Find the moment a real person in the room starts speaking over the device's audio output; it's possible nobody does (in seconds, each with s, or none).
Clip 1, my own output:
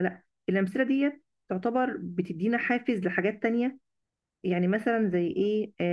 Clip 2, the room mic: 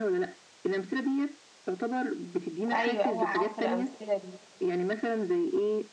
2.7 s